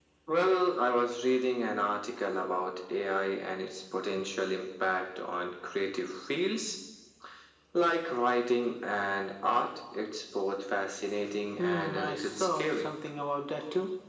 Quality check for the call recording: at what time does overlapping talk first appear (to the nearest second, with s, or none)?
12 s